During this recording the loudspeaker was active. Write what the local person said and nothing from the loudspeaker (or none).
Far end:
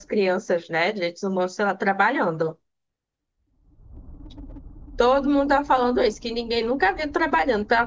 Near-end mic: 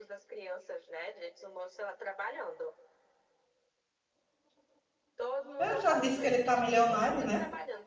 Eu já disse que ele tá milionário, né?